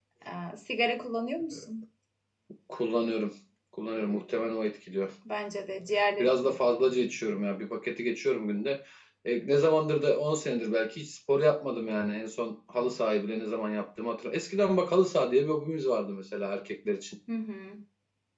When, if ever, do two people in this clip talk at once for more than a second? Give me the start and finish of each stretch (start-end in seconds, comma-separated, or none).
none